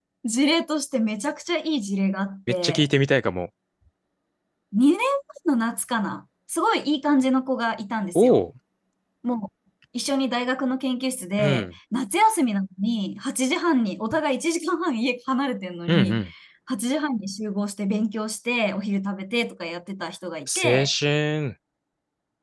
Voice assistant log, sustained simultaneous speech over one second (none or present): none